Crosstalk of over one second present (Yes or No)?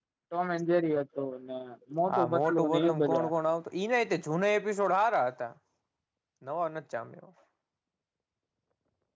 Yes